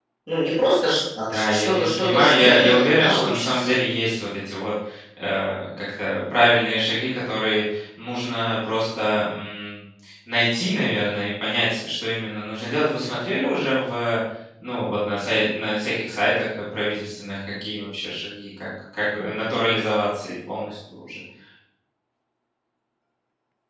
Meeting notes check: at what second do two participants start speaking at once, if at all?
1.3 s

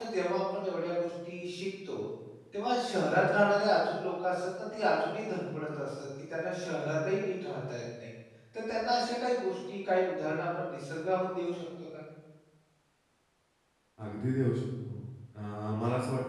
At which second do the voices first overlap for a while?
none

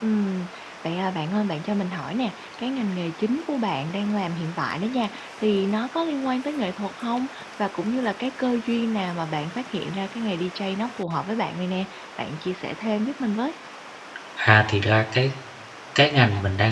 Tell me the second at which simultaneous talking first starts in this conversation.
none

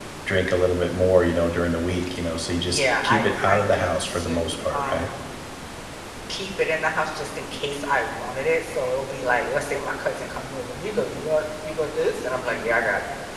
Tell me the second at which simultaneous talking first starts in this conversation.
2.6 s

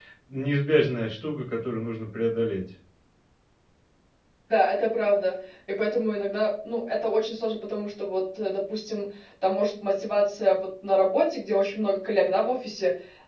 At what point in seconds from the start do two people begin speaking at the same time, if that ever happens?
none

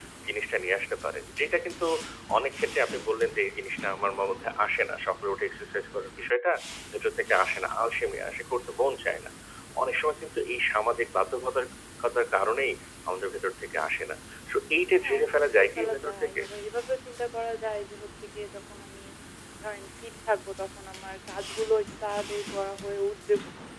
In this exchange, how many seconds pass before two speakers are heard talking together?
14.9 s

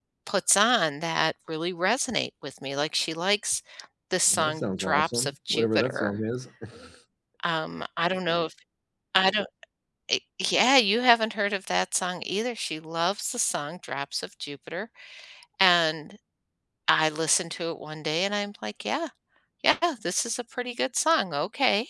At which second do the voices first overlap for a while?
4.3 s

